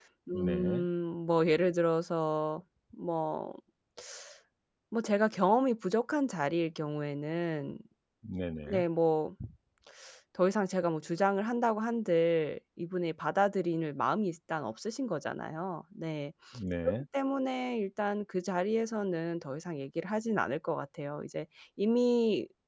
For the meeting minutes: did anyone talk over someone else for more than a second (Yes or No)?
No